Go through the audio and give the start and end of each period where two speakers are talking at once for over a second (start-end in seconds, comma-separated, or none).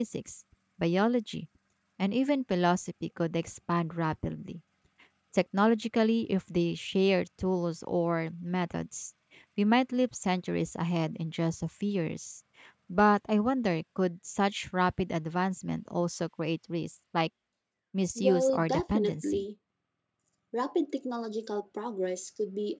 18.2-19.4